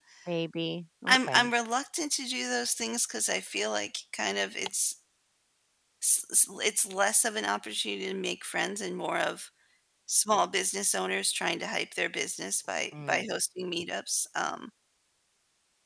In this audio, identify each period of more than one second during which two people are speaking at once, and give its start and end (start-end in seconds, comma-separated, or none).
none